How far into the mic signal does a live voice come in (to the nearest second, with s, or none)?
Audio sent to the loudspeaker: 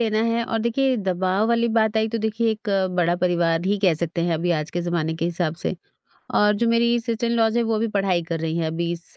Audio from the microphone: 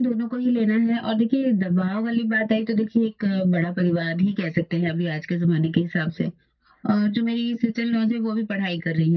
none